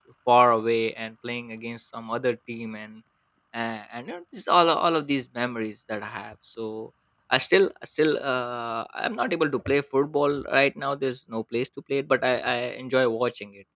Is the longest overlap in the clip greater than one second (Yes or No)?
No